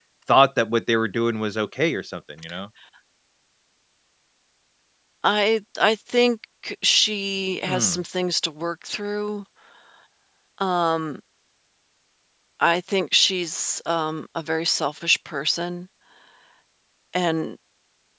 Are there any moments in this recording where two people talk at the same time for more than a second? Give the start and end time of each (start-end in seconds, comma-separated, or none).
none